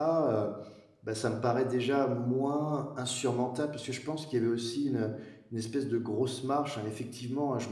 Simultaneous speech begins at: none

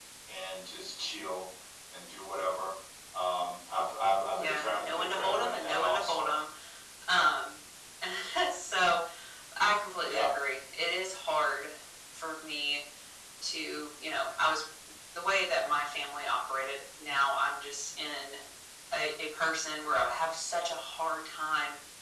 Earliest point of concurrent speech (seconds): 4.3 s

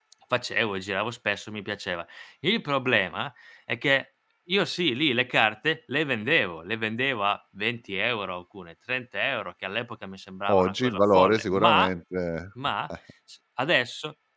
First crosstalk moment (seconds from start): 10.5 s

